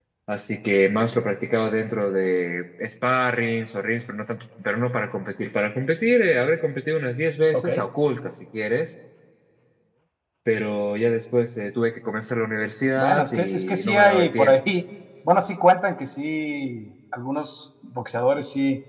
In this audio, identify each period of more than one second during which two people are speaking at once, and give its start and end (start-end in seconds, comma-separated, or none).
13.0-14.6